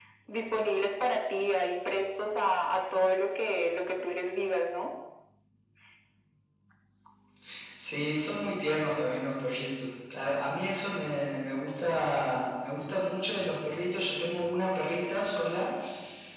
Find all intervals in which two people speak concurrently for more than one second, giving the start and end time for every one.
none

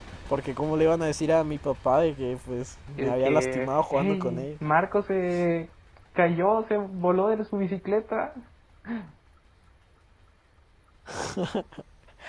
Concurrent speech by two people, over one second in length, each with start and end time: 3.0-4.5

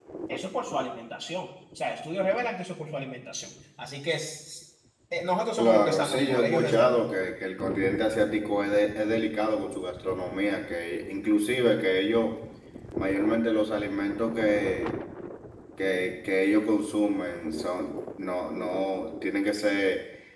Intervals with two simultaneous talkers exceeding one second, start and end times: 5.6-7.1

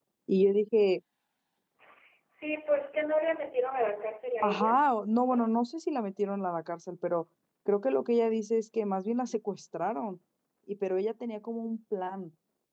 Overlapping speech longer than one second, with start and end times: none

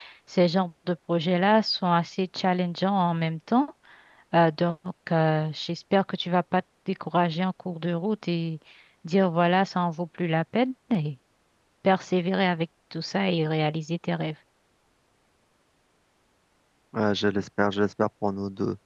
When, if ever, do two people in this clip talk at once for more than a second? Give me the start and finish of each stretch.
none

